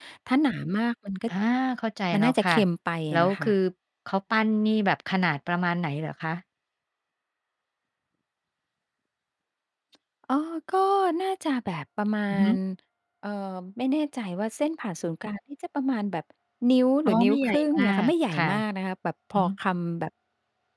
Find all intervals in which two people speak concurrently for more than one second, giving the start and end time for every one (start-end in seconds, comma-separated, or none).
17.1-18.5